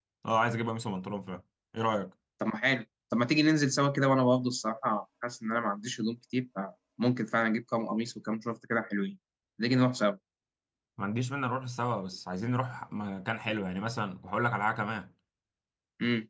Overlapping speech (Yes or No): No